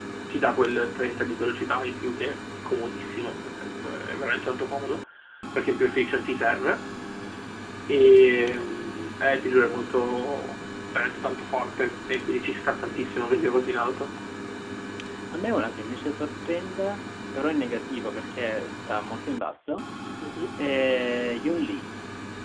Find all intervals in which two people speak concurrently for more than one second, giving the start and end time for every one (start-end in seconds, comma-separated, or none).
none